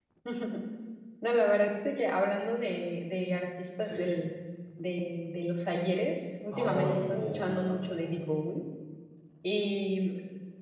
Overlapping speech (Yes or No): Yes